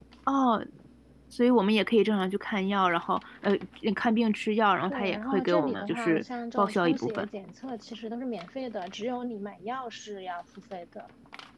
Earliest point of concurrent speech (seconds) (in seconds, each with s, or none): 4.9 s